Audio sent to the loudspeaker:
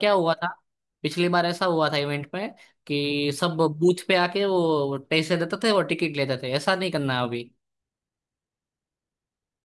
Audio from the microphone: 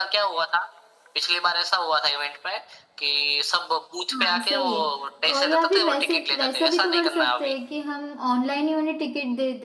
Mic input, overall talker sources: both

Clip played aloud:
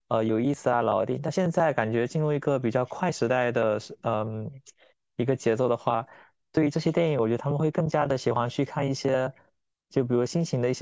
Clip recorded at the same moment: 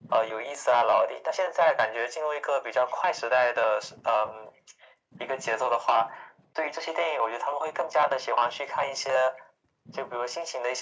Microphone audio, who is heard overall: echo only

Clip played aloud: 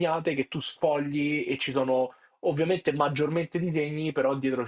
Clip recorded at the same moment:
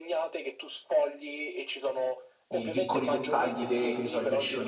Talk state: both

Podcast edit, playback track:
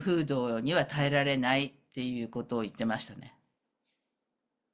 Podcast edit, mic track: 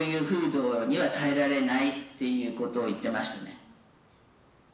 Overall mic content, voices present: echo only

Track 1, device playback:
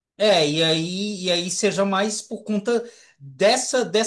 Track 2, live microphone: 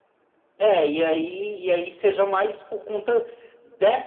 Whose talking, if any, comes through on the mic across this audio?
echo only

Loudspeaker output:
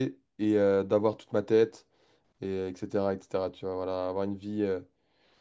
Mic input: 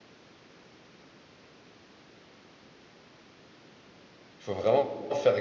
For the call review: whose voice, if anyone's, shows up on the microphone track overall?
user only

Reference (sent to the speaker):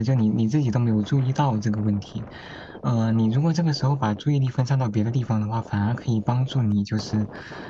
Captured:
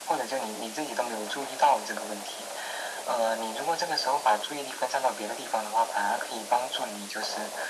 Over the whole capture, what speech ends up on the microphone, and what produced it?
echo only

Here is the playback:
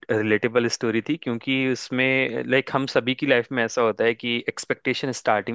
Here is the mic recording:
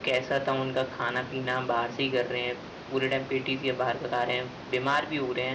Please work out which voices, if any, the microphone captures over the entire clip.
user only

